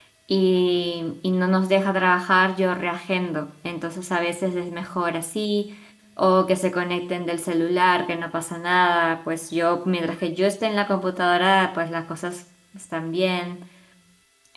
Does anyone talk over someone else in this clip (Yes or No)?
No